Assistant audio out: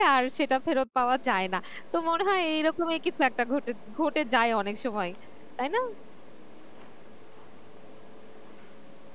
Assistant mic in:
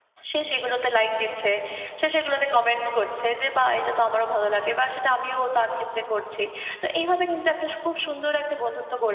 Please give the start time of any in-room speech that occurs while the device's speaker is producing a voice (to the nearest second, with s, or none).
0 s